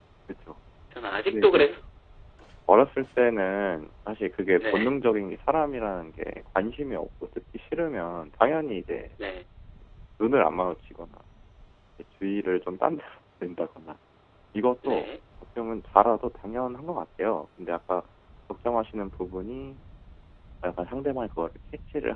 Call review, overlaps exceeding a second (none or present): none